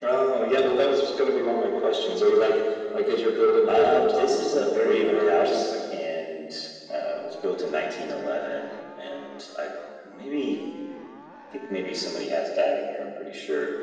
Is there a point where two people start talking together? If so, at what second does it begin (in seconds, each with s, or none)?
3.7 s